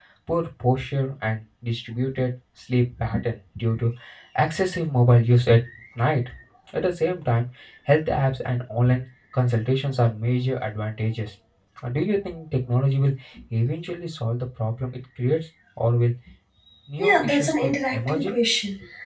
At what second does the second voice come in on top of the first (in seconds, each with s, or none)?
17.0 s